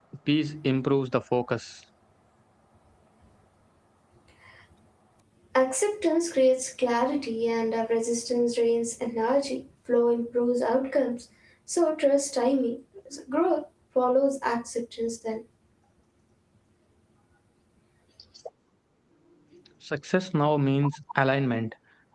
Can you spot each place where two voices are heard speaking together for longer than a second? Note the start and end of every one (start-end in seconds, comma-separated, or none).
none